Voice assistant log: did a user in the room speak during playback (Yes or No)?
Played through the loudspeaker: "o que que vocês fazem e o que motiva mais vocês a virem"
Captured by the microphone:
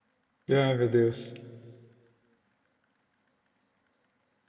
Yes